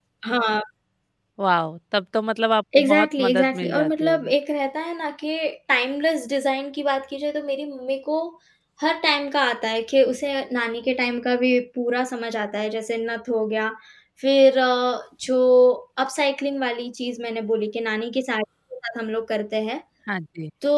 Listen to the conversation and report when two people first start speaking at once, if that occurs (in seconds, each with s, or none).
2.7 s